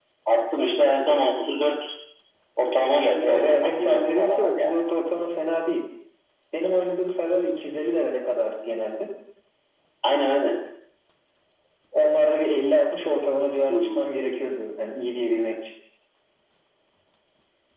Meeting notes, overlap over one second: present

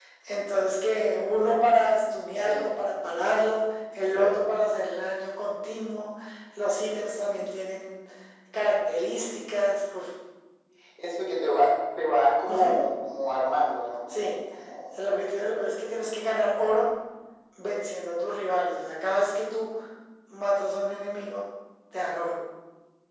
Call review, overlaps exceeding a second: none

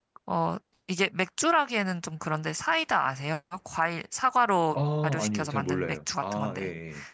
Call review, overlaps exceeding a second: present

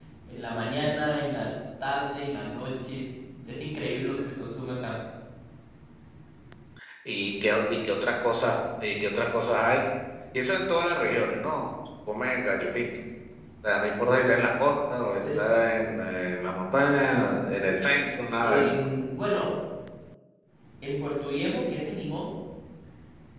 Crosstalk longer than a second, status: none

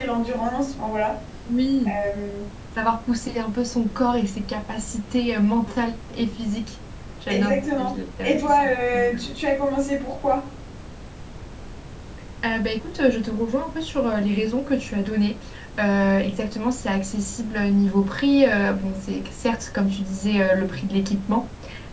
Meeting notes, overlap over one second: present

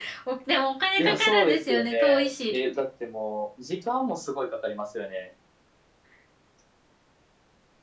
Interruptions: present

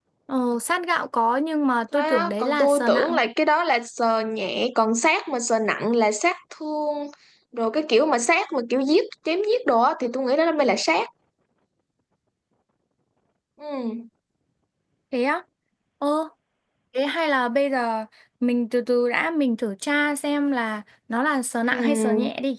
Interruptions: present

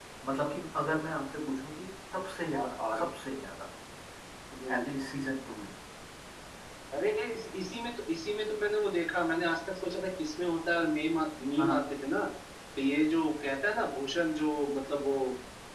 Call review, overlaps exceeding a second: none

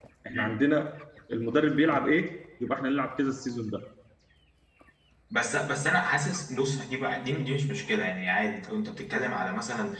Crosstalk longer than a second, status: none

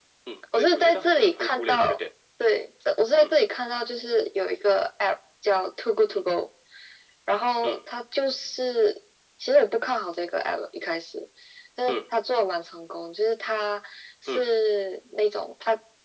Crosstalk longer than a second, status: present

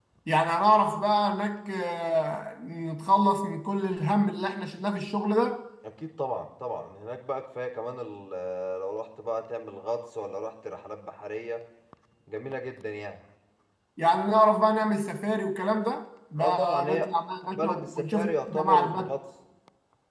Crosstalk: present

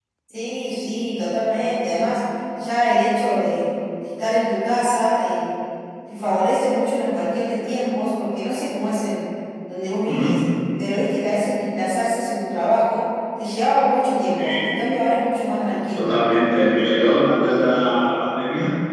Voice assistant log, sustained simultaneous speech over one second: none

